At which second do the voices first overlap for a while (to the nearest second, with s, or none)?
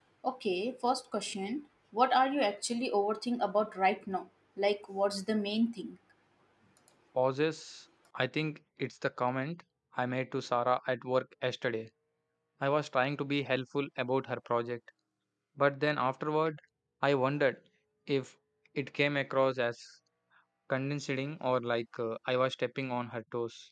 none